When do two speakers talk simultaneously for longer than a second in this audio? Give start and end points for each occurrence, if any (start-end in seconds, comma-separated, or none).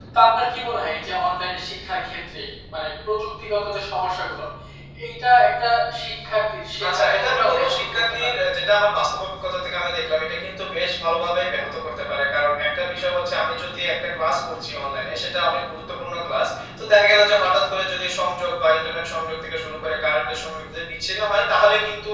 6.9-8.3